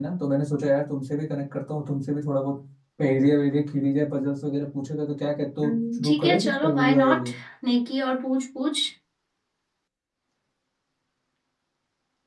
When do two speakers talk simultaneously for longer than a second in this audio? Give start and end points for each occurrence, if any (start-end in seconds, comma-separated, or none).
5.6-7.3